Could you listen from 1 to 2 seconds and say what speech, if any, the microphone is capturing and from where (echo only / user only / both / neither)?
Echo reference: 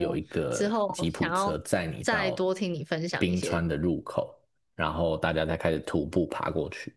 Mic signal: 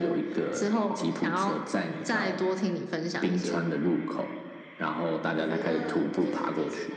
echo only